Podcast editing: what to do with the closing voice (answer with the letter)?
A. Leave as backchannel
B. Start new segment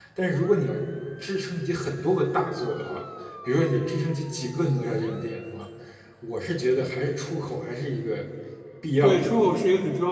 B